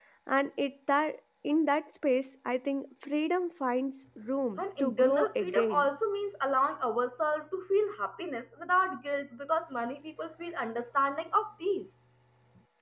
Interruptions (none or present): present